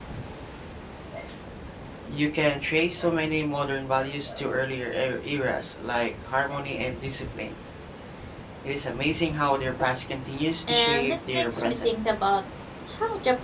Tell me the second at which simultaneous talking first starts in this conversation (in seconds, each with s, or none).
10.7 s